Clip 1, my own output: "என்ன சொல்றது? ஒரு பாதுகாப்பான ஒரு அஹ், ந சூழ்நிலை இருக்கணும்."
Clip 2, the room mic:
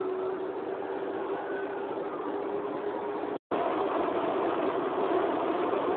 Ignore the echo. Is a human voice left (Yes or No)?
No